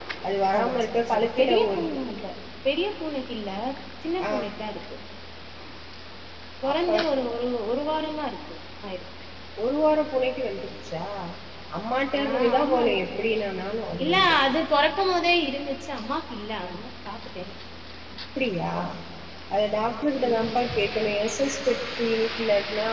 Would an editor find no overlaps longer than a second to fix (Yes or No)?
No